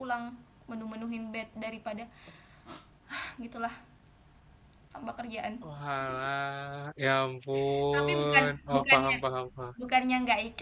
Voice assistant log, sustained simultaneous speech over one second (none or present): present